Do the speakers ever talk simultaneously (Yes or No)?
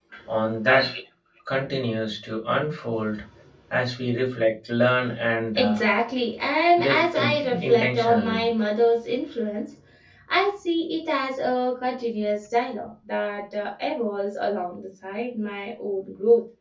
Yes